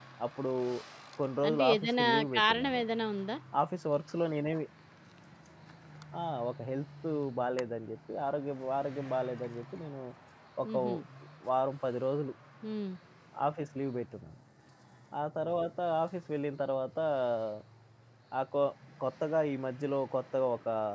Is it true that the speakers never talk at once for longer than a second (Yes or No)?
No